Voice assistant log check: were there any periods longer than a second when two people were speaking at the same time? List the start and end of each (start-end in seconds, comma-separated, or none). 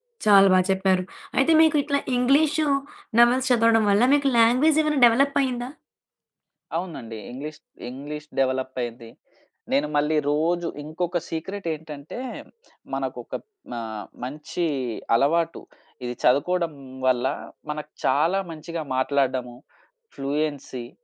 none